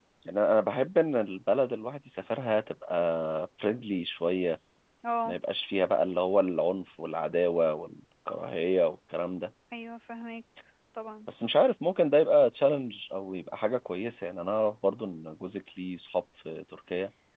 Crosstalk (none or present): none